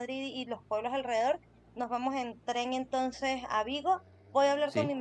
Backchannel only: Yes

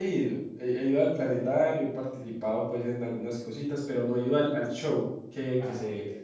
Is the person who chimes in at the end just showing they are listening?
Yes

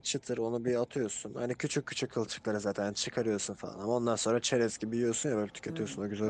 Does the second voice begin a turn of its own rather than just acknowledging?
Yes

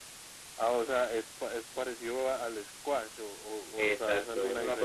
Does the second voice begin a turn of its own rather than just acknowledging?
Yes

